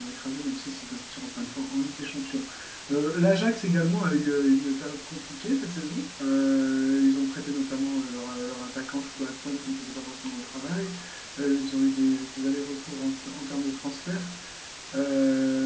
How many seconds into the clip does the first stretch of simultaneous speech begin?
none

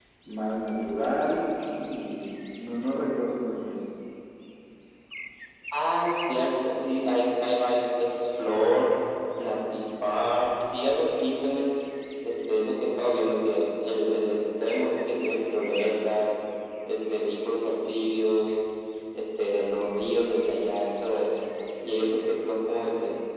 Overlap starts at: none

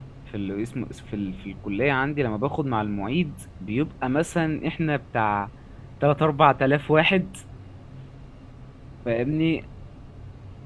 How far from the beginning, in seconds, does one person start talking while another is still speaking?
none

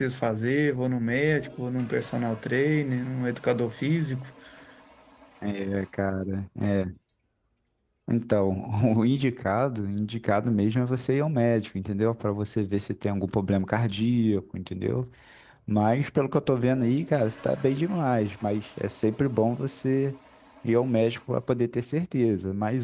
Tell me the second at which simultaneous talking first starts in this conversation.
none

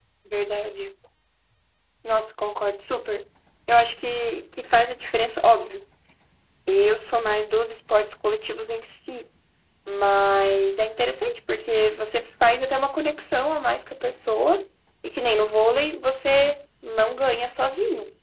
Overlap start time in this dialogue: none

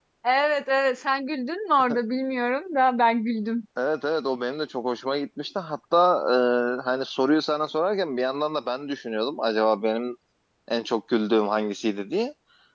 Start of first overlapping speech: none

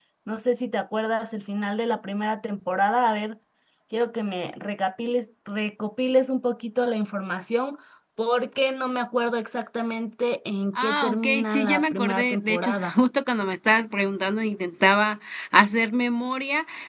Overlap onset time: 10.8 s

